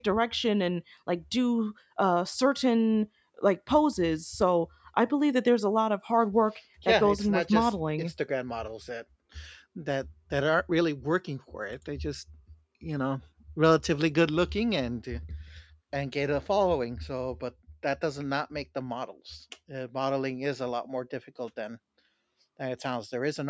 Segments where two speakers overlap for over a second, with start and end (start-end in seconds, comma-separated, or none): 6.8-8.1